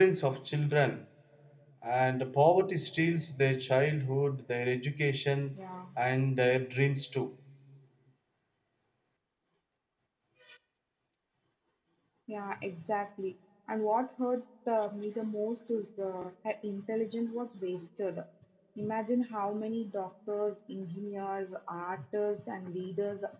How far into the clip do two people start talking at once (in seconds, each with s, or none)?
none